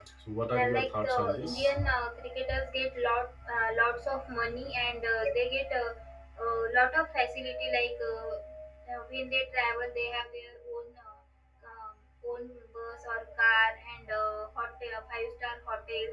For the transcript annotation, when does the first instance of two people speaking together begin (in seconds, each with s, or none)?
0.5 s